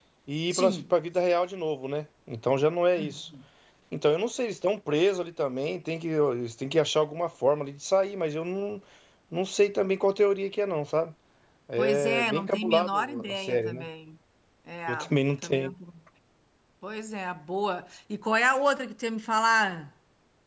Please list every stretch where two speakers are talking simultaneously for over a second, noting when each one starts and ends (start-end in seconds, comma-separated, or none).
11.8-13.9